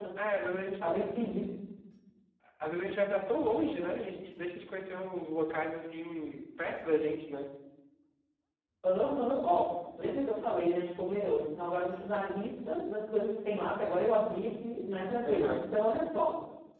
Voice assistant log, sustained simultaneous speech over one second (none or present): none